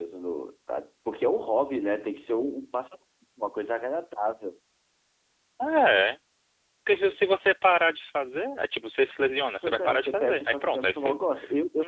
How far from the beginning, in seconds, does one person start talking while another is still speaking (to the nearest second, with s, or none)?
10 s